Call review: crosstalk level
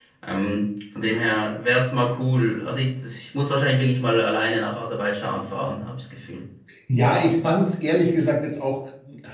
none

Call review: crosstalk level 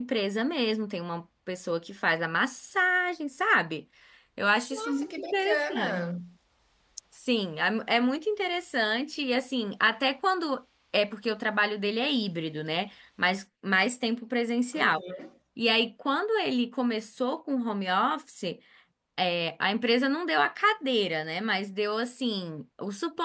present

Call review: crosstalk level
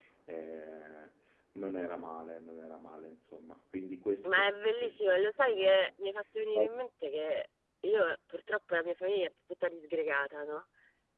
present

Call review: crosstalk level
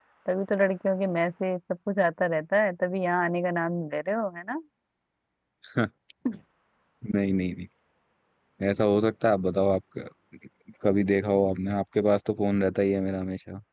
none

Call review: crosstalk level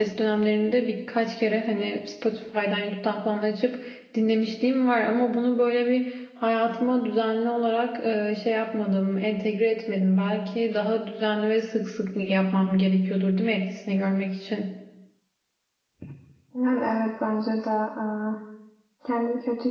none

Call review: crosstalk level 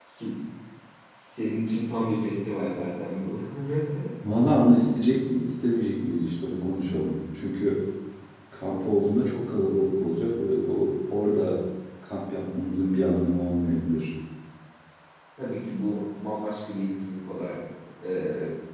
none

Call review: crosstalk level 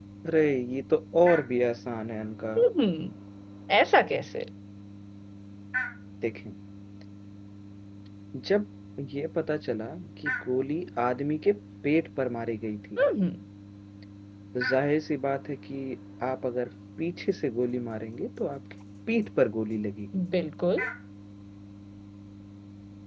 none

